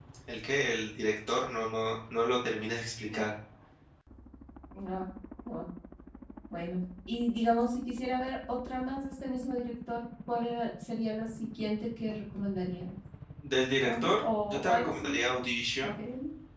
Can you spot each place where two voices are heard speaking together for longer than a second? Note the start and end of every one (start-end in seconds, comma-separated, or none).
13.8-15.2